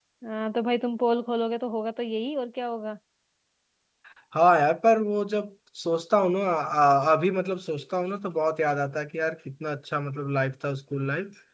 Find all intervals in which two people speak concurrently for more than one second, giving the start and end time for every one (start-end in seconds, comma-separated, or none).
none